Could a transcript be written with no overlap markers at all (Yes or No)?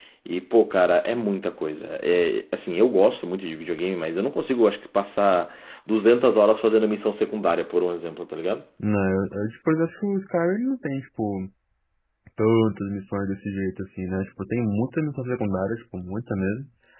Yes